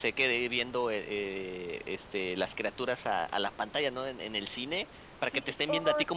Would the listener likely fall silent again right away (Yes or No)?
Yes